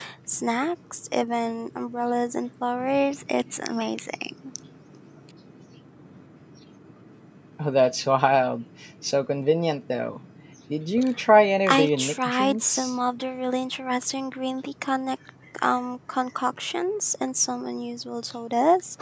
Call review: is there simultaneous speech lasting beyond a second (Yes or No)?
Yes